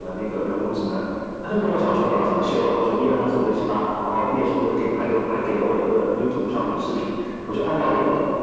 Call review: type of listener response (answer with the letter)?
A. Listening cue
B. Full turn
A